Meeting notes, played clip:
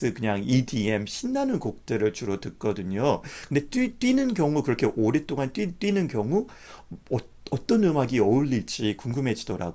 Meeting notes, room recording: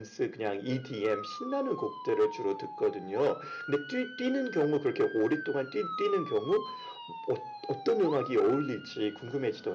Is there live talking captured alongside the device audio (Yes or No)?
No